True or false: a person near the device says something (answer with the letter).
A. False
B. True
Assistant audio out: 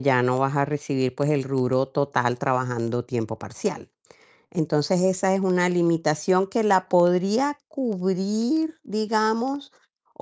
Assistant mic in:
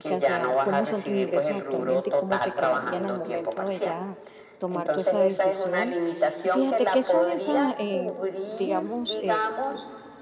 B